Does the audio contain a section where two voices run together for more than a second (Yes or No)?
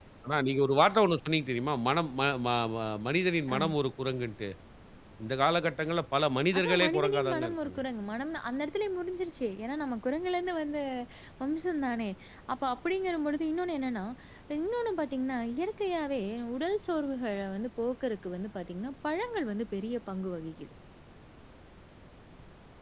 Yes